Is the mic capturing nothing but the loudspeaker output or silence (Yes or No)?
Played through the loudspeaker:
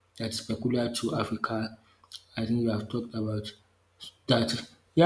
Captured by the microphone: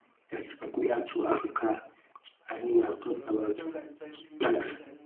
No